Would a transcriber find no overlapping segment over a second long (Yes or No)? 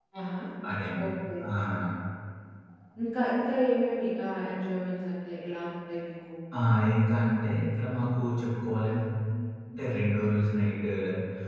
Yes